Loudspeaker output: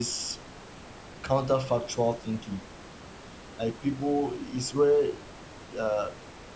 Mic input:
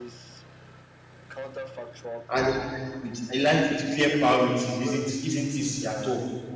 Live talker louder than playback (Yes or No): Yes